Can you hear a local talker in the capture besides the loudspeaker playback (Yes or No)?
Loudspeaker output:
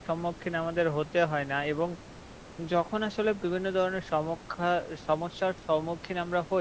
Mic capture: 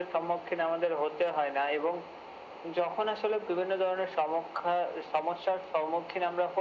No